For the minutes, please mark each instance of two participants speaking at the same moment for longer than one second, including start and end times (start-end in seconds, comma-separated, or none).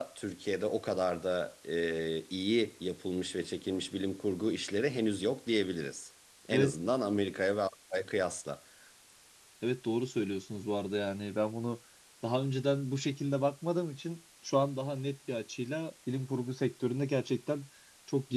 none